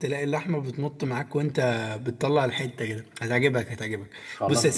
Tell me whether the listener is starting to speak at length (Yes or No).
Yes